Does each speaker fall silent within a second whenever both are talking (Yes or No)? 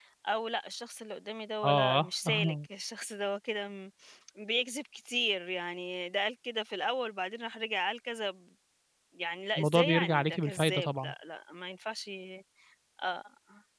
No